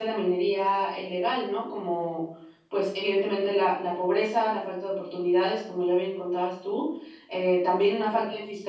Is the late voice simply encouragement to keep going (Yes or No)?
Yes